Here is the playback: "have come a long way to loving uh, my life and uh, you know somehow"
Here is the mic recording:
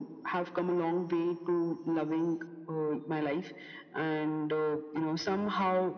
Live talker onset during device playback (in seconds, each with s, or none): none